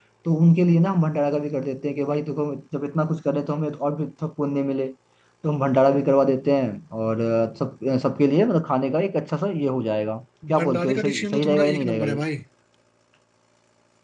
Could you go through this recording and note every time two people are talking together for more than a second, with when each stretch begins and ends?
10.6-12.2

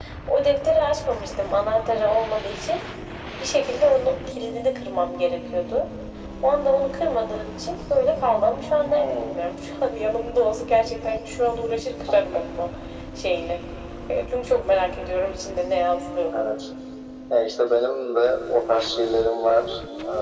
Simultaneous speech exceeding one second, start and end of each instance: none

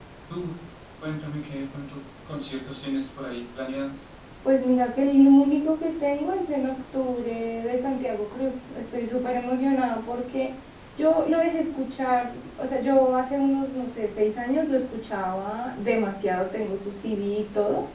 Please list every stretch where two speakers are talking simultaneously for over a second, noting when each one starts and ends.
none

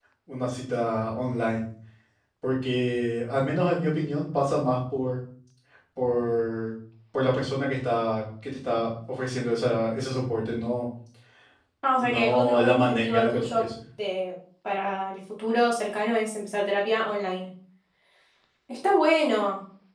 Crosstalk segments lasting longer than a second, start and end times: 12.0-13.6

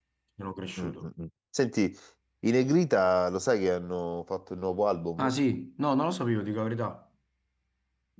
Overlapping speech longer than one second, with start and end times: none

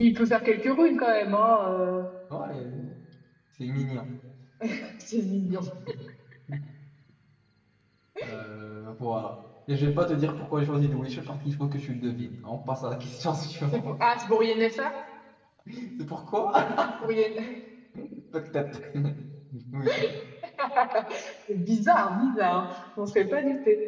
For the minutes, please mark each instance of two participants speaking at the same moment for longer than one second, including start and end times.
none

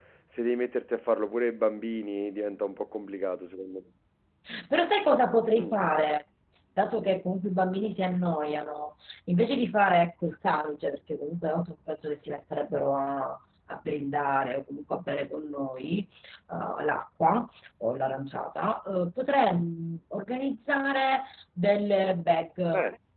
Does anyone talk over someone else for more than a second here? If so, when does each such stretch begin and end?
none

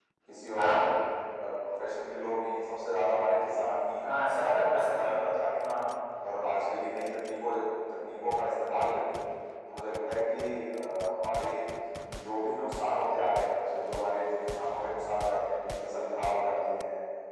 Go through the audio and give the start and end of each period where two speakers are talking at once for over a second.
4.0-5.6

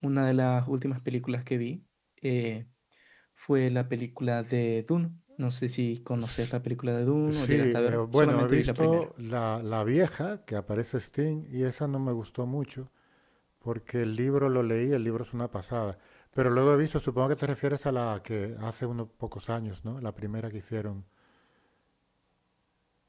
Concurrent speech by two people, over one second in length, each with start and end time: 7.3-9.1

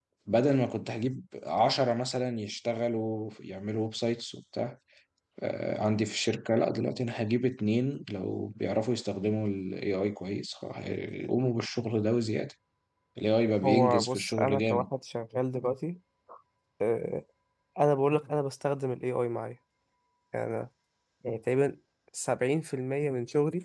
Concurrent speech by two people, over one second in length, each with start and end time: 13.6-14.8

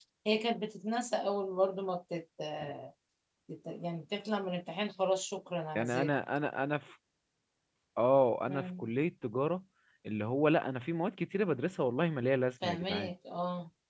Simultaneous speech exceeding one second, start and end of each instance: none

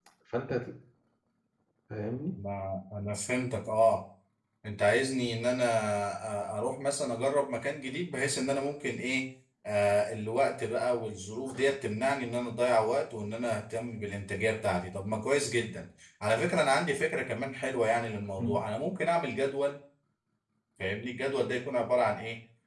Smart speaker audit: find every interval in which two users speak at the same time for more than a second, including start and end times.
none

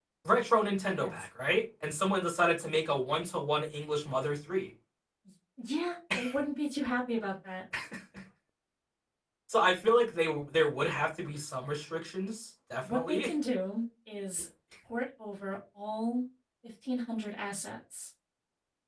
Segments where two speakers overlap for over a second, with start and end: none

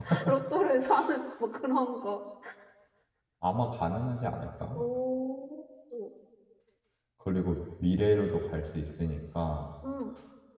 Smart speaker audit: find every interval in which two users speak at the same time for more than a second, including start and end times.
none

